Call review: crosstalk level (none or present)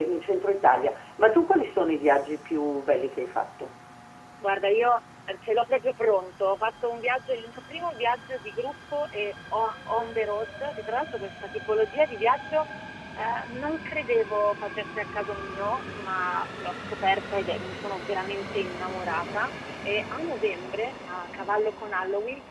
none